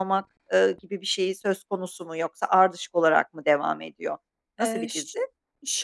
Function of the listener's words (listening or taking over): taking over